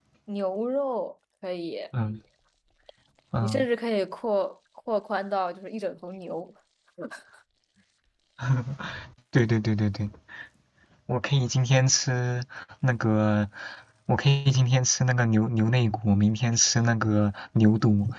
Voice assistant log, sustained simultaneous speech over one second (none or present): none